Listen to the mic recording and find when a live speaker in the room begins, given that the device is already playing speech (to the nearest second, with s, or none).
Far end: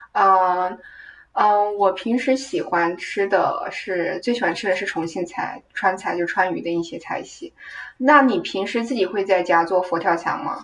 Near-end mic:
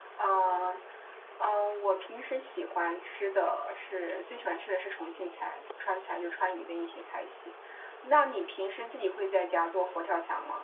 none